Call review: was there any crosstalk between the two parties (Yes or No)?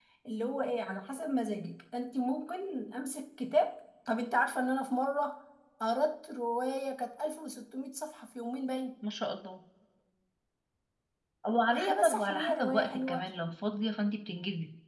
Yes